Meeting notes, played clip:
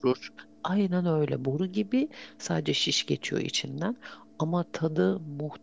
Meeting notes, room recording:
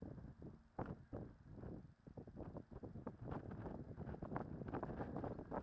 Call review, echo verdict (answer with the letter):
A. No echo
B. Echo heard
A